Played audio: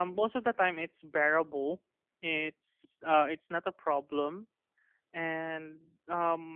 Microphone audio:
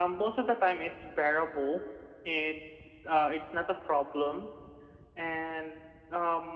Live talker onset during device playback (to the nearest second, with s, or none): none